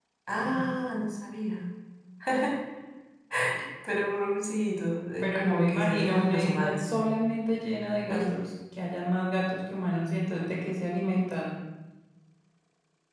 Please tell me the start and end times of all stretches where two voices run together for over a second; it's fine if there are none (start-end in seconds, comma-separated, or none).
5.2-6.8